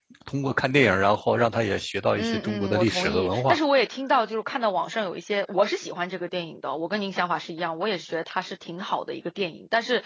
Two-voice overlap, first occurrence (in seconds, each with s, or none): 2.2 s